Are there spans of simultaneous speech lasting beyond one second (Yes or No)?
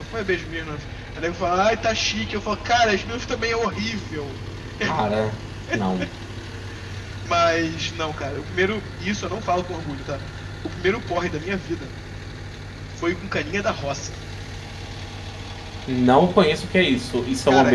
No